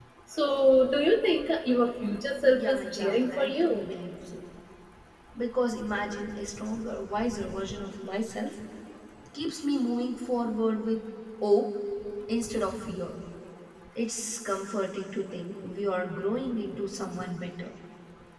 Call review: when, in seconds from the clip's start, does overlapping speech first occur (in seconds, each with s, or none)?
2.5 s